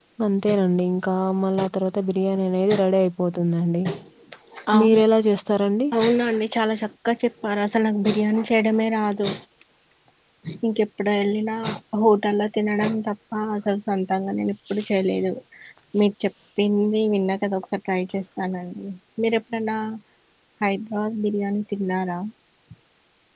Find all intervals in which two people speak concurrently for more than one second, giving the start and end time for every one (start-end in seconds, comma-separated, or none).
none